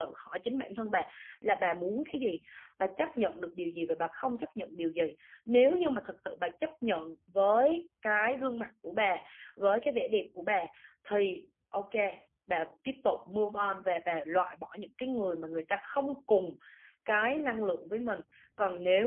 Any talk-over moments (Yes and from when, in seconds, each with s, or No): No